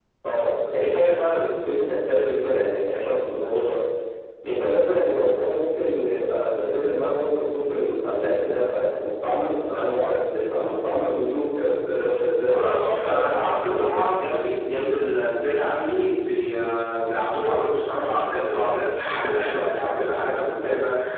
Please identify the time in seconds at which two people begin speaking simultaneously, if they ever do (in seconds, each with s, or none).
12.5 s